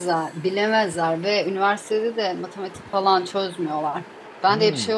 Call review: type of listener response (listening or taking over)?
listening